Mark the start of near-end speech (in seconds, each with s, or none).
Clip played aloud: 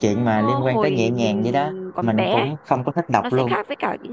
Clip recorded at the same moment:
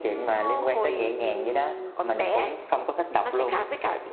none